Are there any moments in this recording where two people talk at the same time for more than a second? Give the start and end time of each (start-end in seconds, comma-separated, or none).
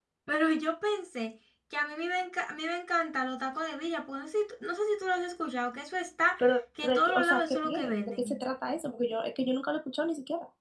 6.8-8.4